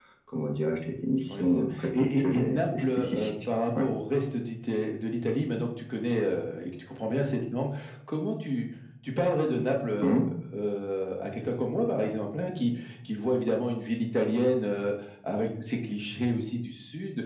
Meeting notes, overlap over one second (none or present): present